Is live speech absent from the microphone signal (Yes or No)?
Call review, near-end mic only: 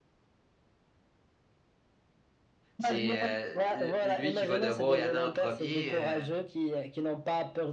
No